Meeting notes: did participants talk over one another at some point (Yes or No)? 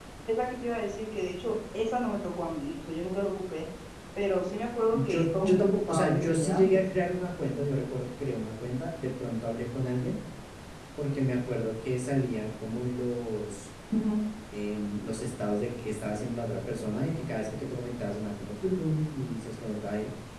Yes